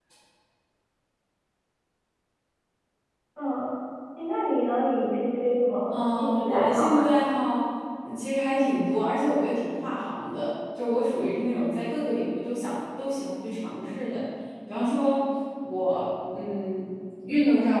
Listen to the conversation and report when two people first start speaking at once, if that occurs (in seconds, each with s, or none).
5.9 s